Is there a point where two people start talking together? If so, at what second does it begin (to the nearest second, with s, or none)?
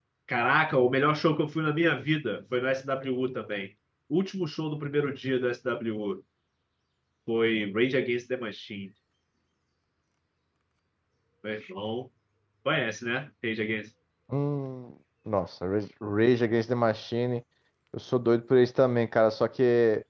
none